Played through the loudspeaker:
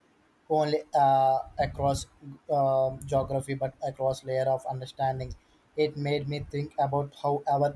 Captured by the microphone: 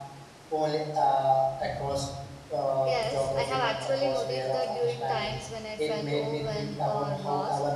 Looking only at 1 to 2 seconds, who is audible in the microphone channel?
echo only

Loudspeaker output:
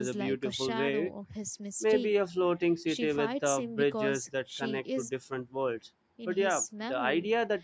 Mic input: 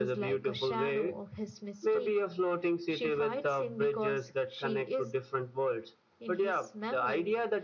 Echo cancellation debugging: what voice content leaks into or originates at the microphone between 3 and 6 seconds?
echo only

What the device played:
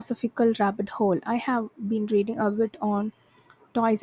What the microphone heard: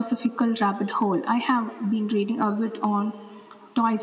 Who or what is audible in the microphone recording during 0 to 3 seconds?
echo only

